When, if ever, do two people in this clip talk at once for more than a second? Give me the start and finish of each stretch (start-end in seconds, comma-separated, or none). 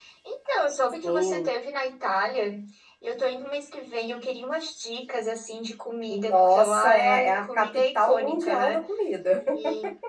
6.3-8.8